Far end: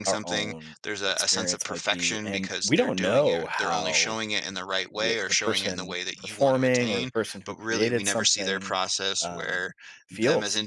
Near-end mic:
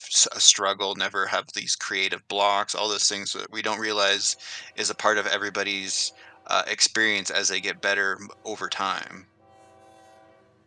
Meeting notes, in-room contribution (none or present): present